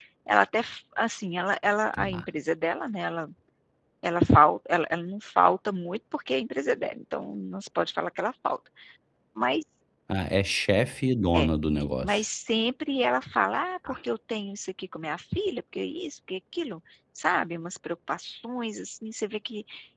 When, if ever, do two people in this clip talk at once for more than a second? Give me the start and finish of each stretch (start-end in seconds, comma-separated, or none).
none